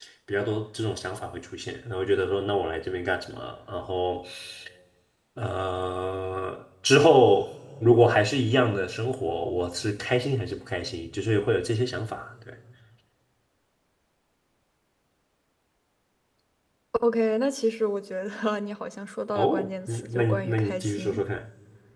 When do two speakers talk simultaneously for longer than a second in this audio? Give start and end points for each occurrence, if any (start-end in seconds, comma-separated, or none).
19.3-21.2